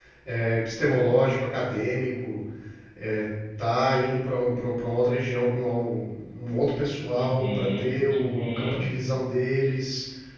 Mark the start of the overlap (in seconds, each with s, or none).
7.2 s